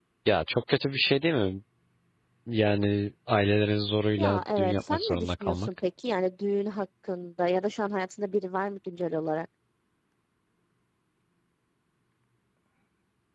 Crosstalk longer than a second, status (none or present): present